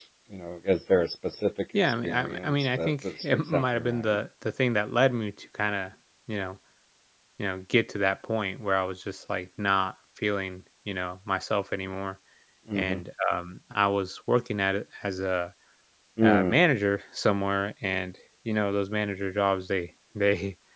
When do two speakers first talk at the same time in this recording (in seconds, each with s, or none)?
1.8 s